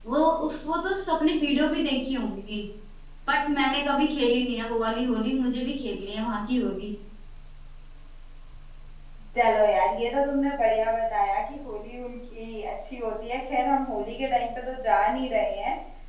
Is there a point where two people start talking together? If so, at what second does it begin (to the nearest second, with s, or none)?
none